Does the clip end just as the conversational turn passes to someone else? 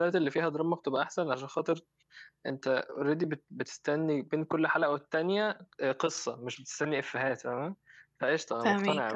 No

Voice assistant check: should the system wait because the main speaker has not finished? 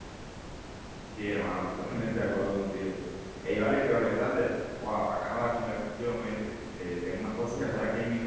Yes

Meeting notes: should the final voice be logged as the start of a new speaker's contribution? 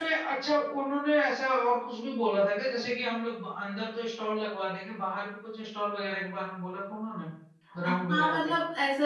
Yes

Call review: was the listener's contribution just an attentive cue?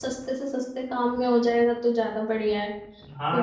No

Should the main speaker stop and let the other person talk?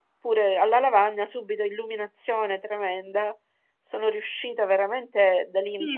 Yes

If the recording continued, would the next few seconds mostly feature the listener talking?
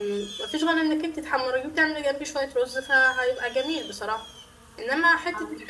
No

